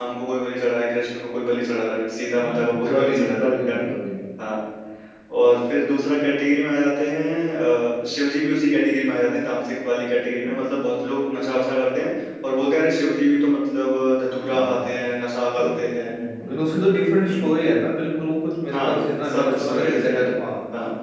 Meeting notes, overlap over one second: present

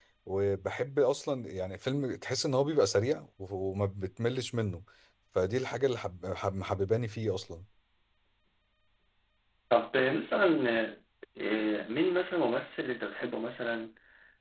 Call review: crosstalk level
none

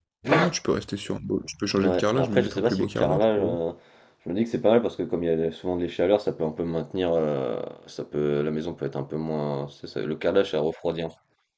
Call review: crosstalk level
present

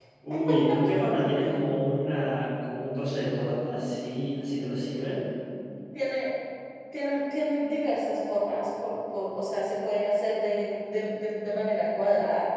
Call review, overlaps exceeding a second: none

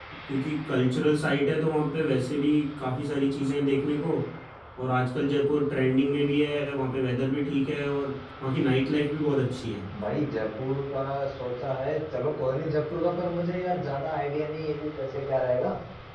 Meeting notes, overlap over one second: none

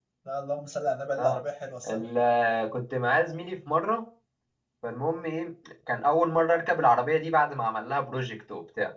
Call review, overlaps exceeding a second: none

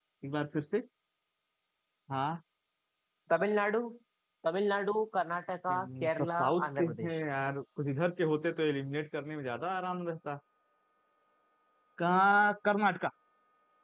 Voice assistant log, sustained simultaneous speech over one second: present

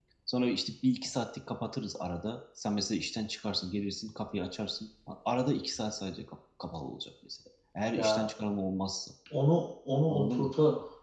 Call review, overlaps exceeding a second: none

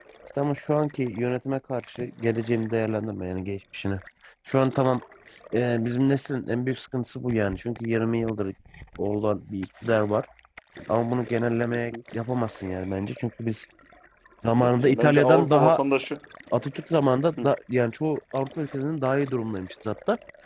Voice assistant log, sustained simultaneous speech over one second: present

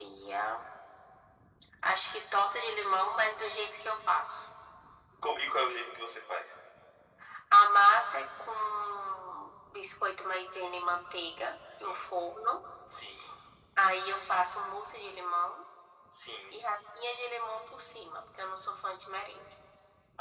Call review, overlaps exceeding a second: none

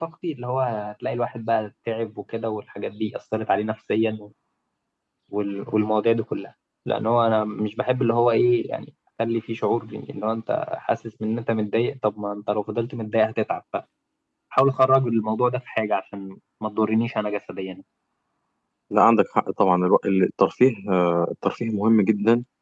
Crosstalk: none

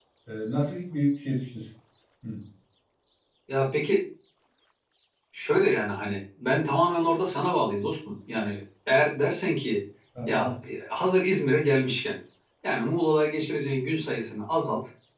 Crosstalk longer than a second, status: none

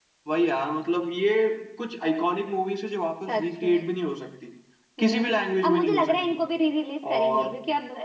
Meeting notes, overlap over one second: present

